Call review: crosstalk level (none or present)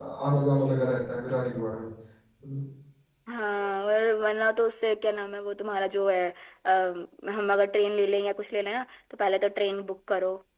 none